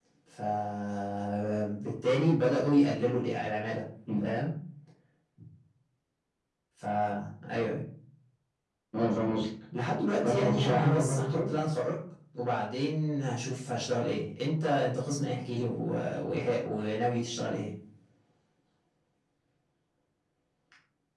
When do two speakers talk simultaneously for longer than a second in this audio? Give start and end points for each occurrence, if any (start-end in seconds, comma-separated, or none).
10.2-11.5